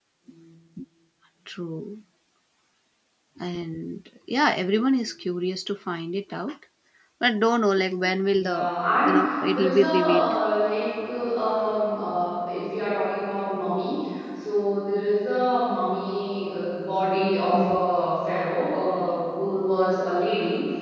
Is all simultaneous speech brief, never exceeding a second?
No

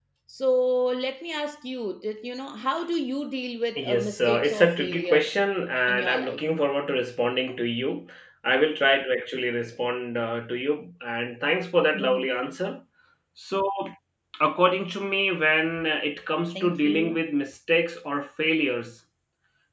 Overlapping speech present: Yes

